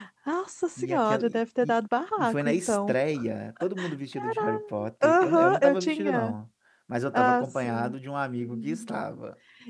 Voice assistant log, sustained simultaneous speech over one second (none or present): present